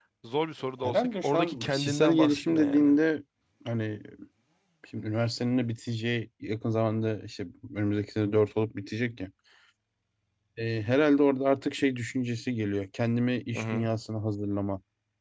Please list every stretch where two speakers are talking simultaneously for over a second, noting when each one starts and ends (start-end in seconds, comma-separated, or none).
0.8-2.9